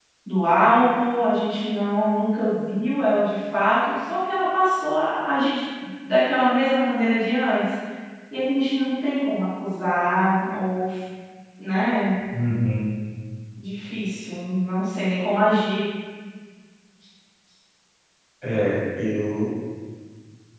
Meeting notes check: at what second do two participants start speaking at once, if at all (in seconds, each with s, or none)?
none